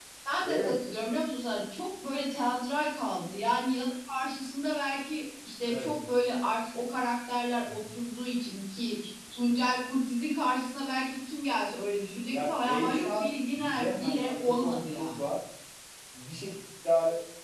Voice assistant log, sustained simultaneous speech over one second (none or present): present